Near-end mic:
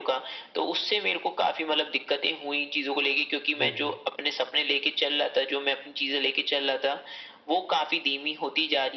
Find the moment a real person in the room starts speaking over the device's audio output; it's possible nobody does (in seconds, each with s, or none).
3.5 s